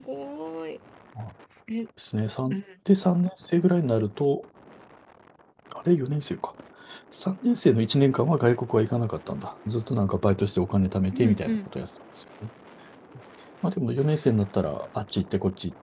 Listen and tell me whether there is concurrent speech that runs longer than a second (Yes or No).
No